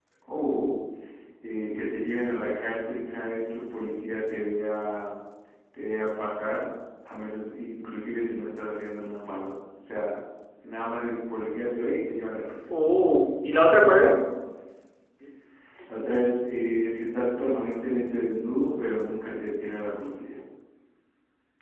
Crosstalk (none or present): none